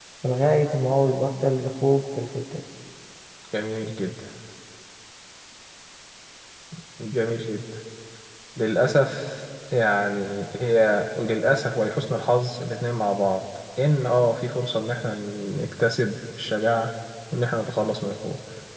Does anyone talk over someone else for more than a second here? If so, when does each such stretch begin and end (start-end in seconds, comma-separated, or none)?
none